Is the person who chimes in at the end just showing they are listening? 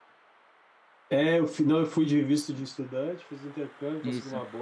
Yes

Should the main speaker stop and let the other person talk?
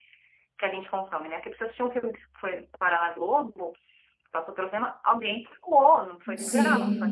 No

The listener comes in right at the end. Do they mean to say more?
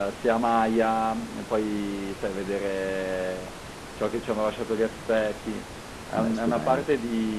No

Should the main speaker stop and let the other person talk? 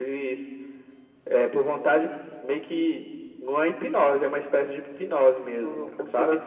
Yes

